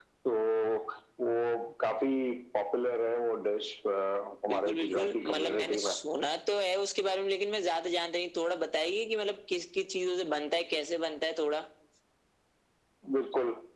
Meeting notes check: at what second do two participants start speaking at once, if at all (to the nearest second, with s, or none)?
4 s